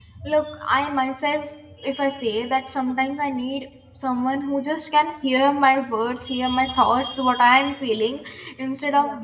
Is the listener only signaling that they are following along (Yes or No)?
Yes